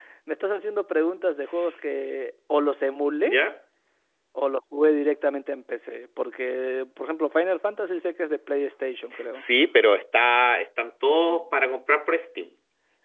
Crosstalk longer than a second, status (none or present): none